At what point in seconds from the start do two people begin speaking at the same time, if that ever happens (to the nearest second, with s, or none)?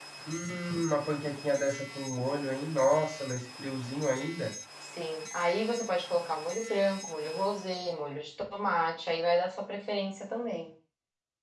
none